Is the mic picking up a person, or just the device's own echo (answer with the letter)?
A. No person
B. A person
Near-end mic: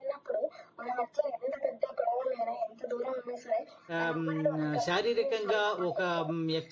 B